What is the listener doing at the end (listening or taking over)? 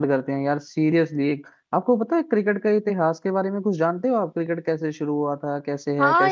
taking over